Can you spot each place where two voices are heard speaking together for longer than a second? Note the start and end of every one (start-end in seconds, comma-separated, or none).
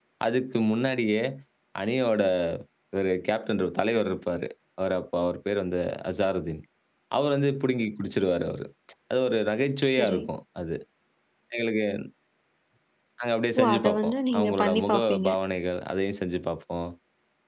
13.6-15.3